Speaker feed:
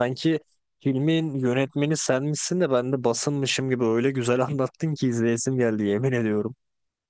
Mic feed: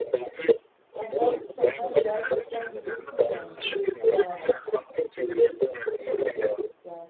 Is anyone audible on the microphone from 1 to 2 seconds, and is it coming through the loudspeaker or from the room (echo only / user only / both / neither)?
both